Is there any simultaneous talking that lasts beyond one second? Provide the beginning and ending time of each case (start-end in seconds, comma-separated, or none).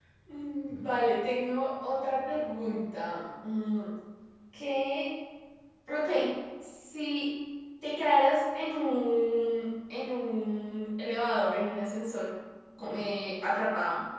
none